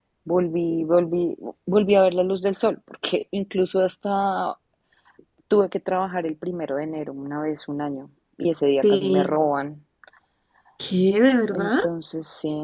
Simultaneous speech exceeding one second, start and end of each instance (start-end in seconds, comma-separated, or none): none